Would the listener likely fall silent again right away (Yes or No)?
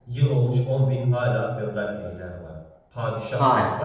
Yes